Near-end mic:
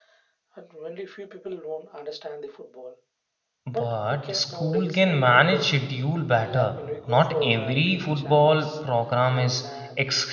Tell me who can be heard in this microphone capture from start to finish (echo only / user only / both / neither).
both